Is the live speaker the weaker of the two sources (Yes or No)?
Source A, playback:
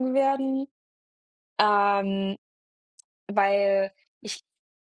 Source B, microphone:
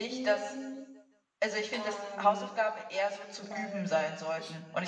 No